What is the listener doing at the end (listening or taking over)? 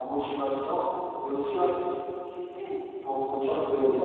listening